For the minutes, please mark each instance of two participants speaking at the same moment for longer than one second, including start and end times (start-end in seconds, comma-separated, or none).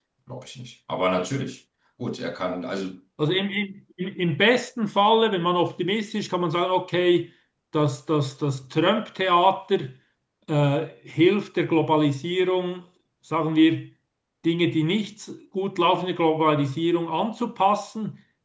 none